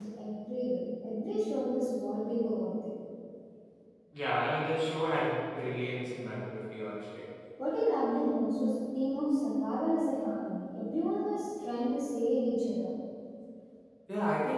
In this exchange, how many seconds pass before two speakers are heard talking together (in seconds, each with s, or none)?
none